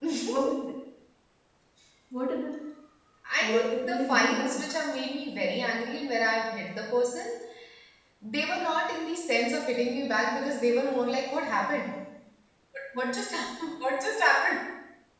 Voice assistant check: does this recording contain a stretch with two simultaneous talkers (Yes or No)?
Yes